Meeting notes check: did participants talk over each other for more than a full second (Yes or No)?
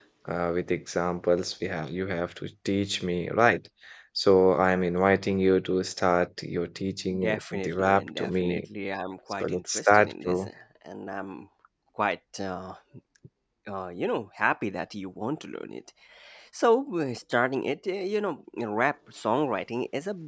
Yes